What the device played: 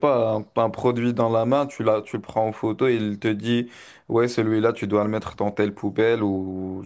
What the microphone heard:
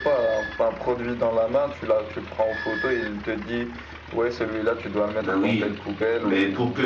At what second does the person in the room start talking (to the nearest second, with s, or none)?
5 s